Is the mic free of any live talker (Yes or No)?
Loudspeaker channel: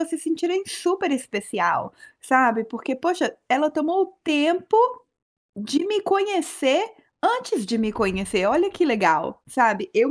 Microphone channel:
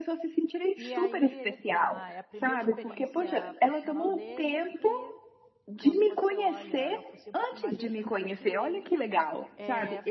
No